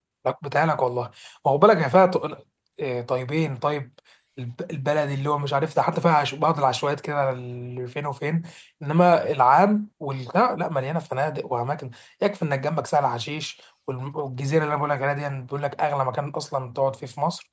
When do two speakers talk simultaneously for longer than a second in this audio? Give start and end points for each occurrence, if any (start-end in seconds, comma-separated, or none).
none